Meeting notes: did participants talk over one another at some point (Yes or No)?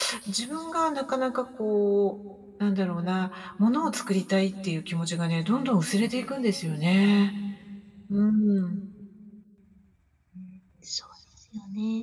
No